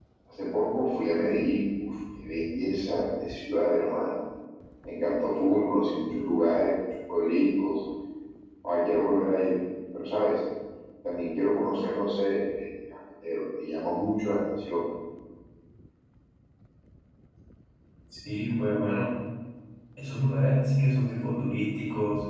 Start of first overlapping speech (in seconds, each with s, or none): none